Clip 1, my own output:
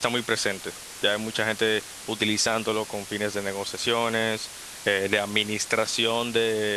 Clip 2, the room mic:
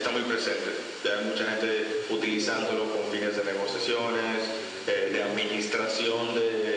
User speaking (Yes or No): Yes